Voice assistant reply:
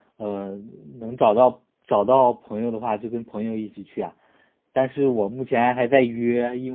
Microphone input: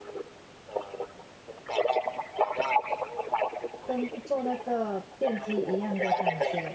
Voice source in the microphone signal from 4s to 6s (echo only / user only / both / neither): both